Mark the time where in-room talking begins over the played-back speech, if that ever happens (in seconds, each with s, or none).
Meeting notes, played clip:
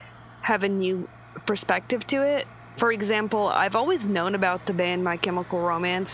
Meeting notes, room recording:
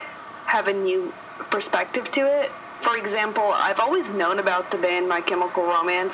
none